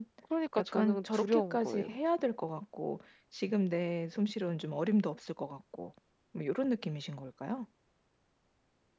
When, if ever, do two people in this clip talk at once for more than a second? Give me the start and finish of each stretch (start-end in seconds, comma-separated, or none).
0.6-1.9